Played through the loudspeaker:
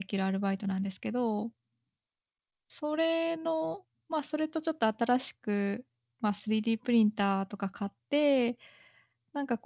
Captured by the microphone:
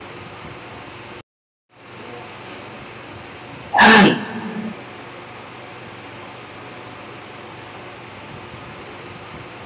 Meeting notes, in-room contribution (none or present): present